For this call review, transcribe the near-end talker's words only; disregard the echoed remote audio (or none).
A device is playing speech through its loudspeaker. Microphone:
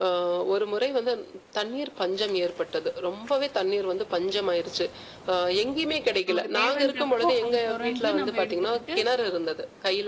நமக்கு தேவன்றப்போ, அது தொறந்து நம்ம எடுத்துக்கிட்டு,